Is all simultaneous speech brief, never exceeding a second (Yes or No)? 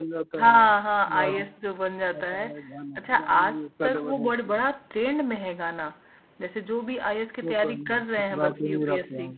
No